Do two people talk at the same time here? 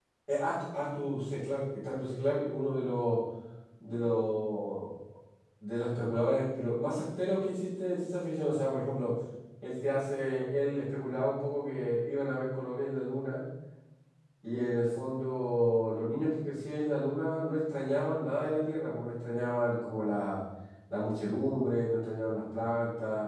No

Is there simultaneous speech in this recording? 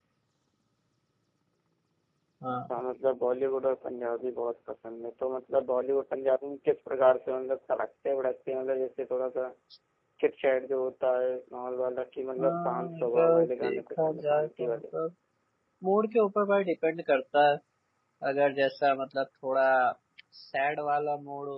Yes, from 12.4 s

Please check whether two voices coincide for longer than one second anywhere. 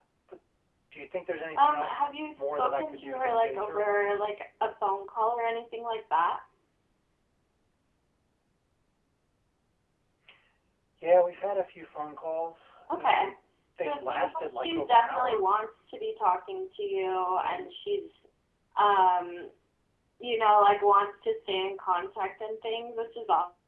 Yes, from 1.6 s

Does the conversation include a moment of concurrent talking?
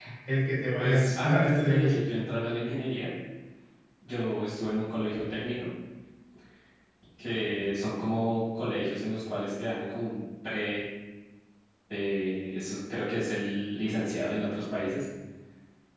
Yes, from 0.8 s

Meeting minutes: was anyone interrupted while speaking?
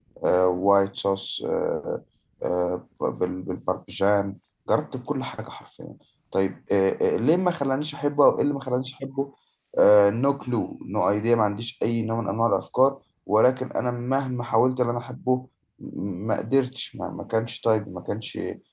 No

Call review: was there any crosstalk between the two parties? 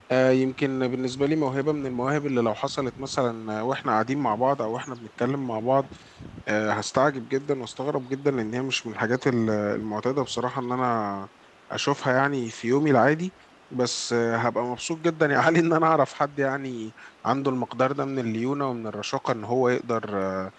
No

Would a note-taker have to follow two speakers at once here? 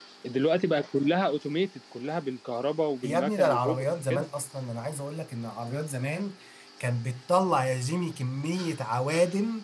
Yes, from 3.0 s

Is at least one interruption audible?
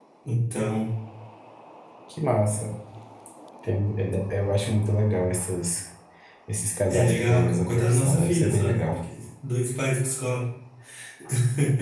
Yes, from 6.9 s

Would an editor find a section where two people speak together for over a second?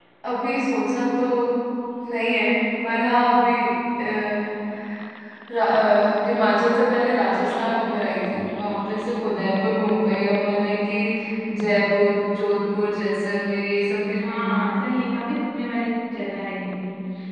No

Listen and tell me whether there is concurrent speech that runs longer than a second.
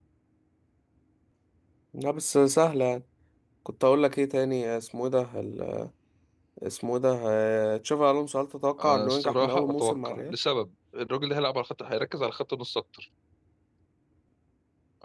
Yes, from 8.8 s

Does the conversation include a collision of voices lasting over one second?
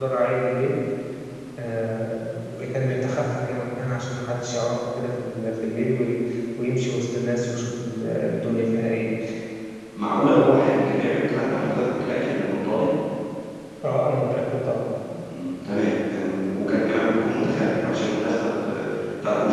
No

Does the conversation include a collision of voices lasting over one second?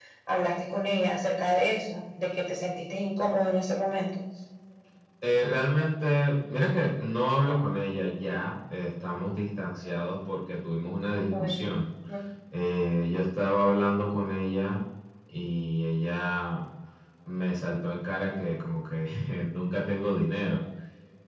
No

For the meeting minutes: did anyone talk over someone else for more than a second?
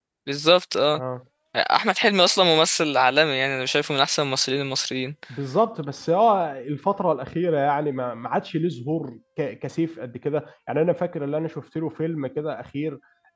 No

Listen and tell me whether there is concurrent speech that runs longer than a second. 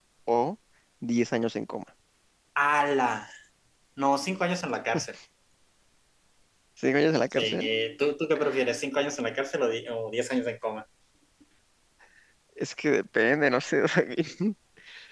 No

